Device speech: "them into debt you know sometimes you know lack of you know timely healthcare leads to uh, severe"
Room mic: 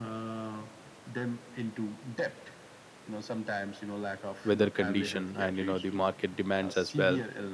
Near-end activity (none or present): present